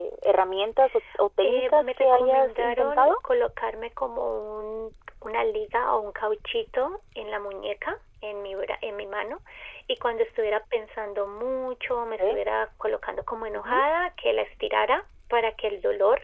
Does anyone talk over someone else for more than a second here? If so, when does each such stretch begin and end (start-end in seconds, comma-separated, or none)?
1.4-3.1